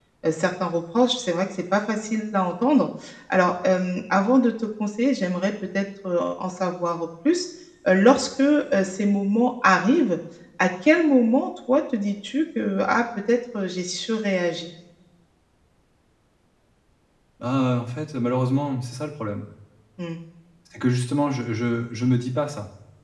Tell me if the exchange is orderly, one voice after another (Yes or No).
Yes